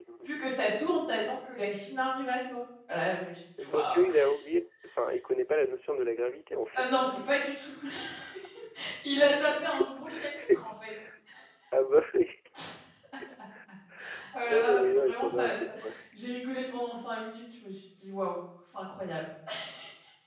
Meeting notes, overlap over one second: present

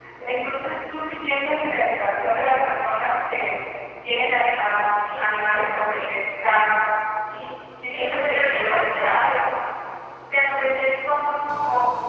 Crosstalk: present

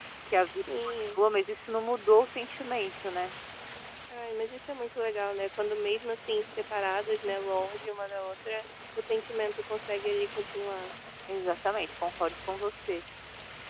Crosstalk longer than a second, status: none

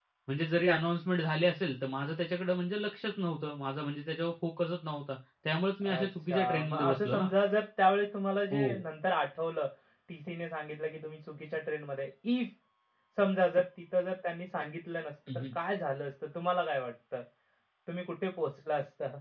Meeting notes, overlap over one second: present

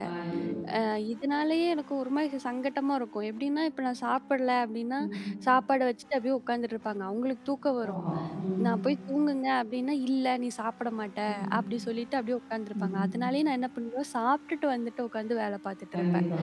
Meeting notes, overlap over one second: none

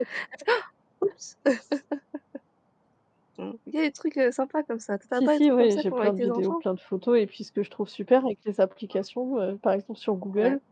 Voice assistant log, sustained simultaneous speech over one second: present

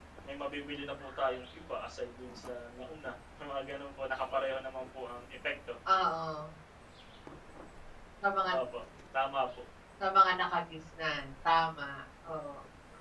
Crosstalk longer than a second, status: none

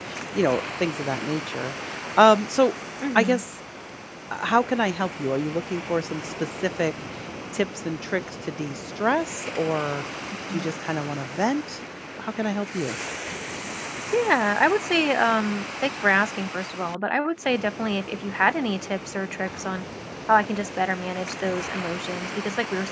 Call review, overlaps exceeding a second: none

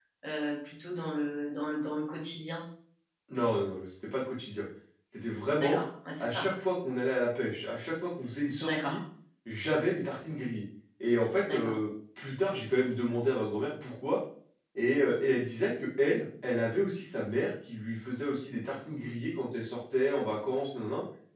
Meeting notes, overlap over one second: none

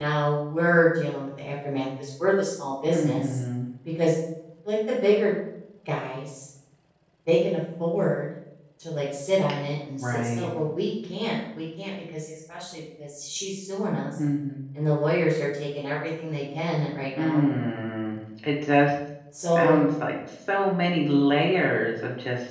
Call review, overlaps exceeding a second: none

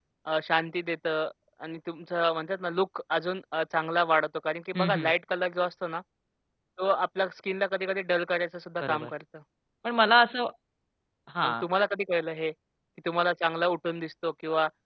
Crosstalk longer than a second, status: none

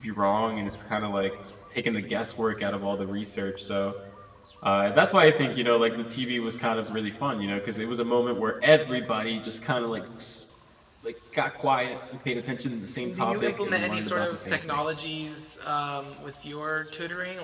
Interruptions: present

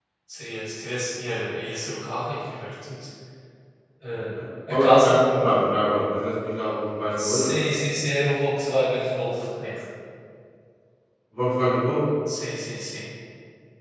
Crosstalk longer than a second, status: none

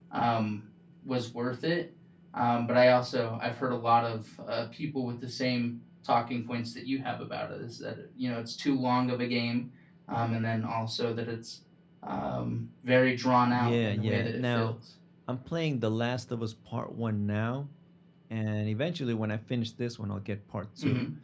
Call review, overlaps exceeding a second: present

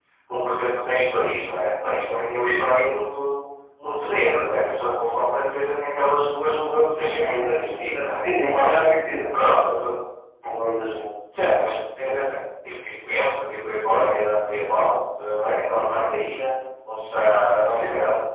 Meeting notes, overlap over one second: present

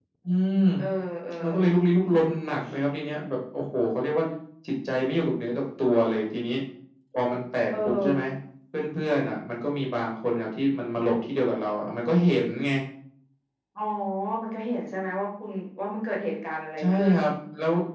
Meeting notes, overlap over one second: none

